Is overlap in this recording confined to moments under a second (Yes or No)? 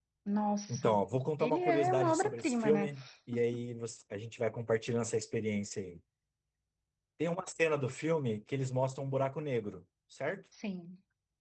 No